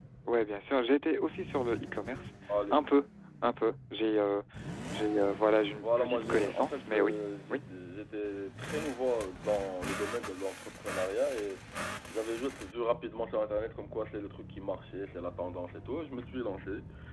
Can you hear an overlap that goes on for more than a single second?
Yes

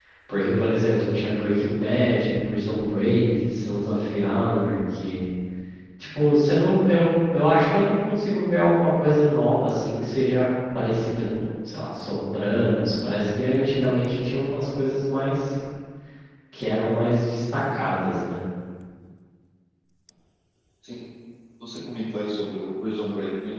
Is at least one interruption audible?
No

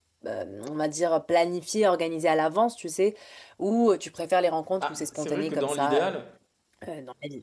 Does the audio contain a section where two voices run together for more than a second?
Yes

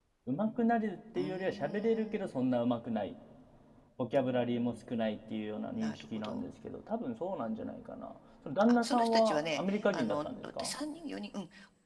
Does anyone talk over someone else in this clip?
Yes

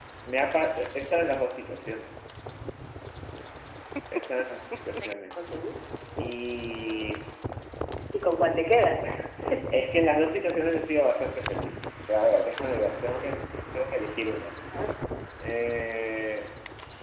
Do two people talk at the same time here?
No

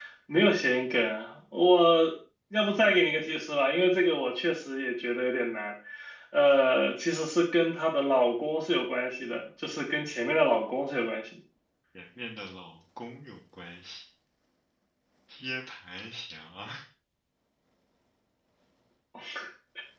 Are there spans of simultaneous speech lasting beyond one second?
No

